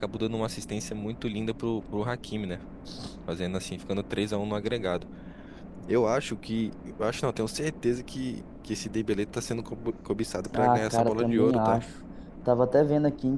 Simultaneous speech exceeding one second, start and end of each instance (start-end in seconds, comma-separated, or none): 10.5-11.8